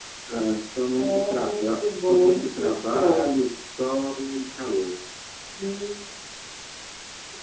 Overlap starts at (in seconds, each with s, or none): 1.0 s